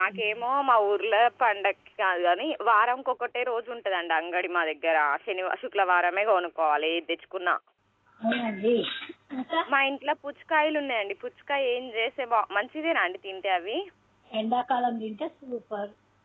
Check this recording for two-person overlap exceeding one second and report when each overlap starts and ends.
none

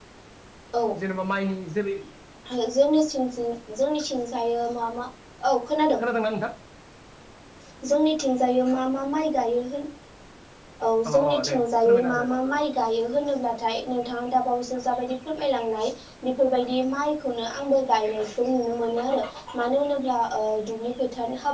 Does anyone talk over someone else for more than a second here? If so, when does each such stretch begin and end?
11.1-12.3

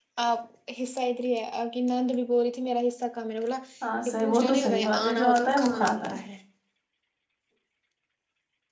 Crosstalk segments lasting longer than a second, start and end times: 4.1-6.1

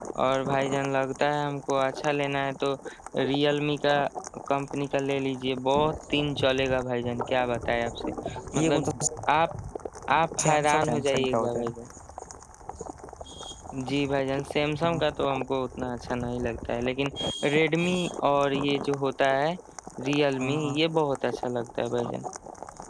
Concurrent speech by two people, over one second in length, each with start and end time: 10.4-11.7

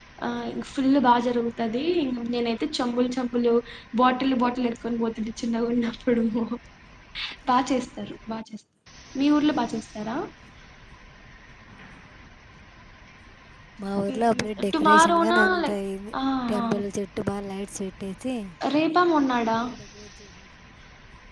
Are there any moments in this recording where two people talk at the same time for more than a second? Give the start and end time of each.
14.1-15.8

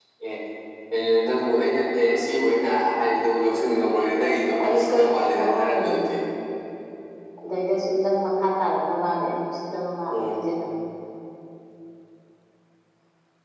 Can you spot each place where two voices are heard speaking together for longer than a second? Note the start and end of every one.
4.6-6.1

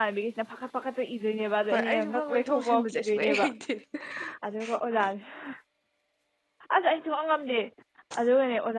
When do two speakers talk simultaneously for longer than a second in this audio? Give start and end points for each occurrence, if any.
1.7-3.5

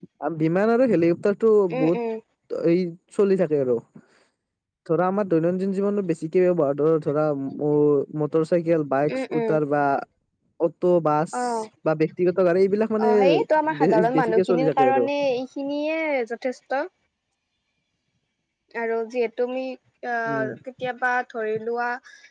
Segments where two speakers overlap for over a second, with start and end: 13.8-15.0

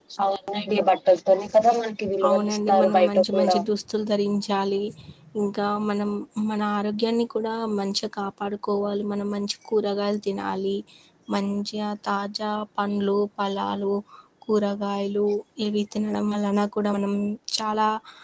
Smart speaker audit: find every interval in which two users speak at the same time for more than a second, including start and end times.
2.3-3.5

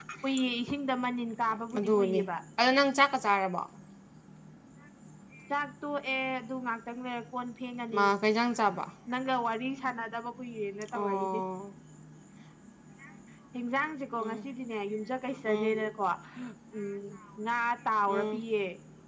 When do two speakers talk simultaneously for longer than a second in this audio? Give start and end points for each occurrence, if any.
none

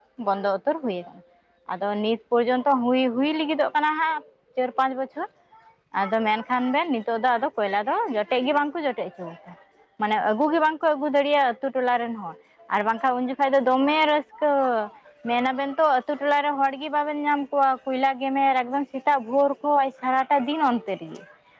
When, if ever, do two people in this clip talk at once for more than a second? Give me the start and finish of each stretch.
none

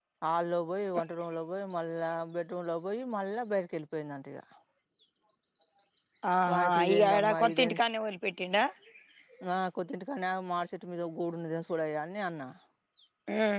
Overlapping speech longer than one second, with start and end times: 6.5-7.8

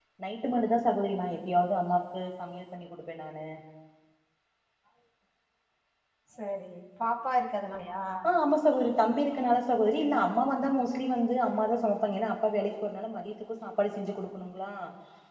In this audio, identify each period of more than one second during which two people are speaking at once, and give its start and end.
none

